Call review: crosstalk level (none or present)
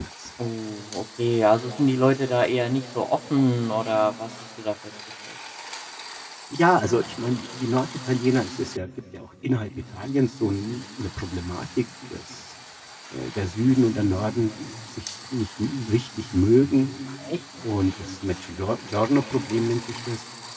none